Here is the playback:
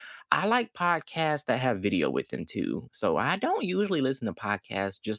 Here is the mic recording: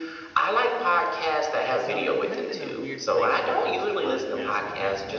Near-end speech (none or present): present